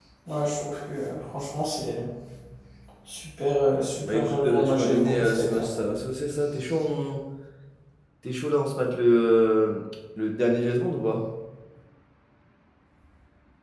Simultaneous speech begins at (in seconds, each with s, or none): 3.7 s